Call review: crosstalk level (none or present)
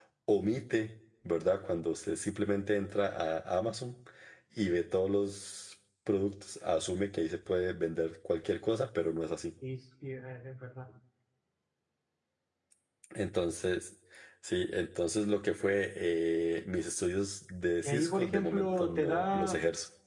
present